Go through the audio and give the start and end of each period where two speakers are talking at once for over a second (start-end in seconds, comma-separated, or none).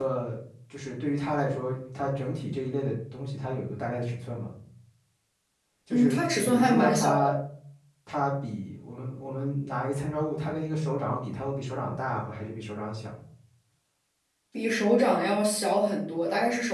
5.9-7.3